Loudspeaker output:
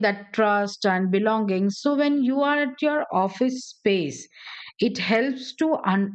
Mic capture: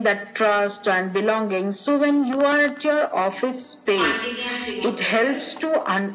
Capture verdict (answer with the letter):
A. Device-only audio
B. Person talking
B